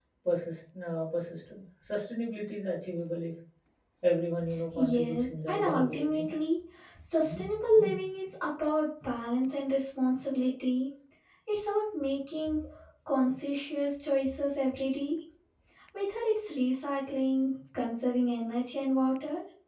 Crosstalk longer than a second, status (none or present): present